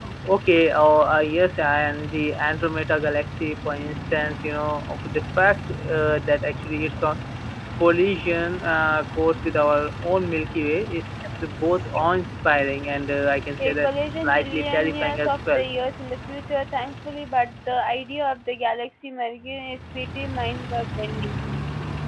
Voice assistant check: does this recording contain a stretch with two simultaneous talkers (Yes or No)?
Yes